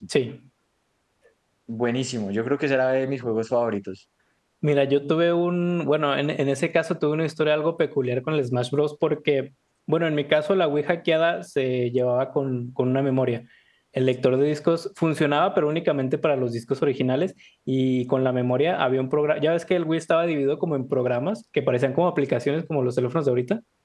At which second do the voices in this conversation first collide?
none

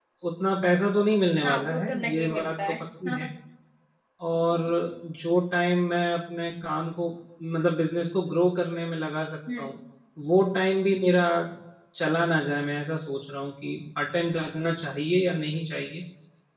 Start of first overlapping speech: 1.4 s

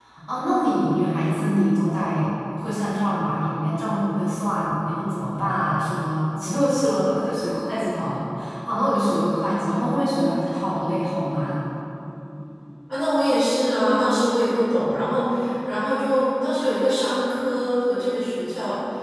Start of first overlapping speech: none

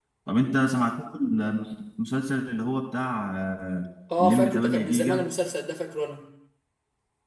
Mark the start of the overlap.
4.1 s

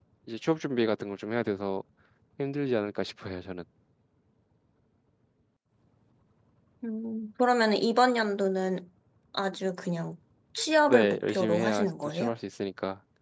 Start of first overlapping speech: 10.9 s

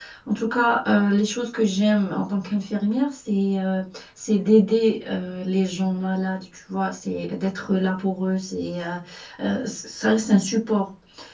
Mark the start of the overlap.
none

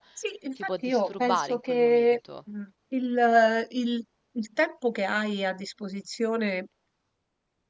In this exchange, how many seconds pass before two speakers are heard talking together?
0.6 s

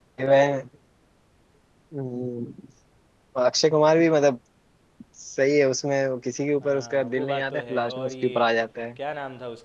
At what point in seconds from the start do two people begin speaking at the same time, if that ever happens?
6.6 s

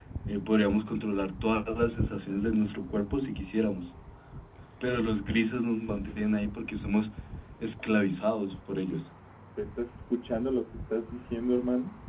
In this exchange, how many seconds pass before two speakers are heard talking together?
none

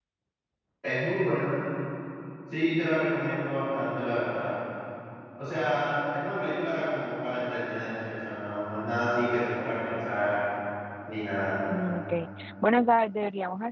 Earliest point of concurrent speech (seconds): none

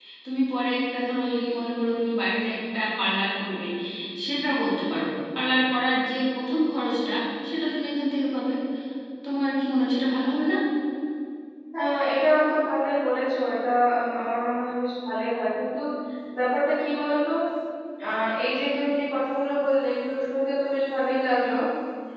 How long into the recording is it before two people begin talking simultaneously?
none

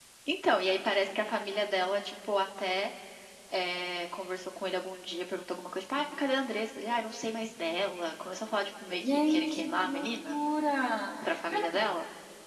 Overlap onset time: 9.1 s

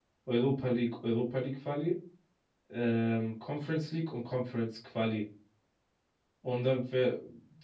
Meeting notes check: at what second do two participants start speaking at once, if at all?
none

